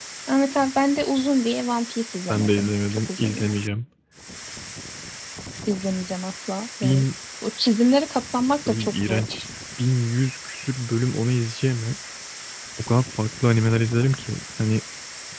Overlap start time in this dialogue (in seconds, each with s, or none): 2.3 s